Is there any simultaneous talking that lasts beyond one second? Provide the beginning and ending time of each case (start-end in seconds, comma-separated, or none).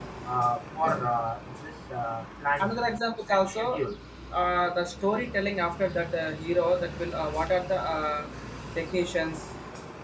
none